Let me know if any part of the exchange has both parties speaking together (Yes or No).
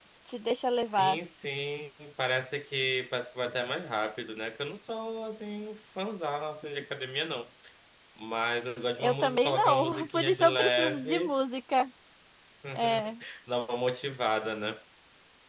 Yes